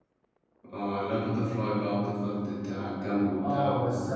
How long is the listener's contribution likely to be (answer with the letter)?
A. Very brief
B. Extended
B